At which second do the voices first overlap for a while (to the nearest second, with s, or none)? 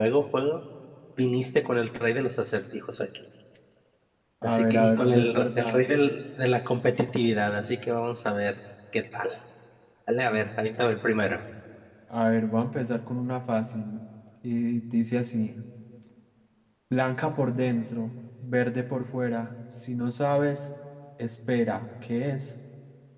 4 s